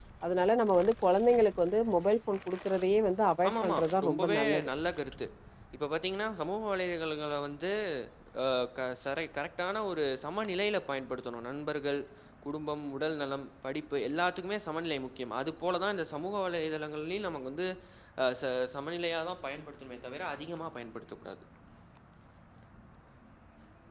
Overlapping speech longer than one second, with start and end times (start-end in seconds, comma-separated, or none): 3.5-4.7